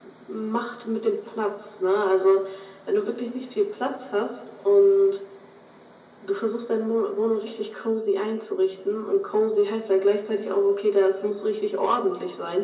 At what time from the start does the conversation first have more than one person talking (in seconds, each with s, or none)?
none